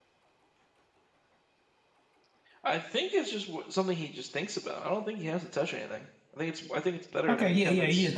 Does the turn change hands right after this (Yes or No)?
Yes